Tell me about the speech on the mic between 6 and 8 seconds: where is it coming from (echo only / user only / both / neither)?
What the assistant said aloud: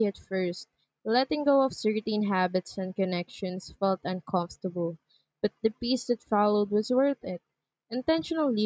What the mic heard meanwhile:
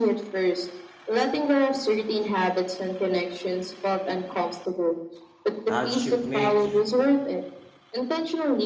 both